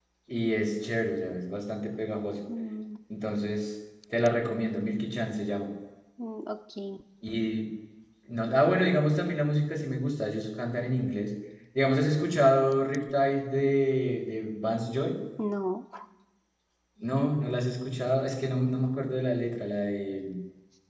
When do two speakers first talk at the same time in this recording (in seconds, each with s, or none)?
none